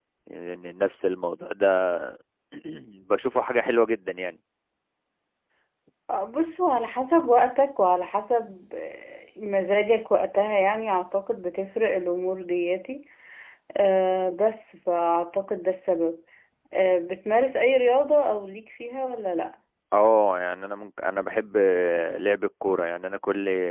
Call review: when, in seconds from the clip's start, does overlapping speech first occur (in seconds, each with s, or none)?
none